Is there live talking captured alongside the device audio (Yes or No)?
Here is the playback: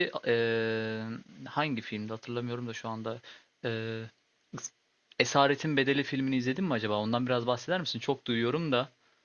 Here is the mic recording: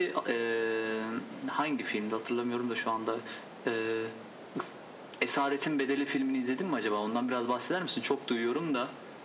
No